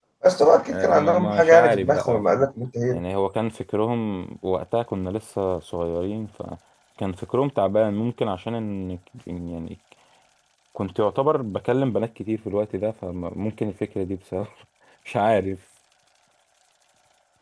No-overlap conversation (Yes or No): No